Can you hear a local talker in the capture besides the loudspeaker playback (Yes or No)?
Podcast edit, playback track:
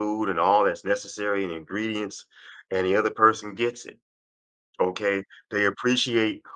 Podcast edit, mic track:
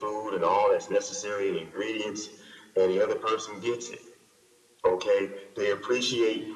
No